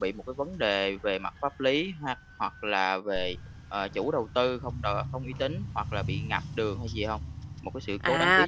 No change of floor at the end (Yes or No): No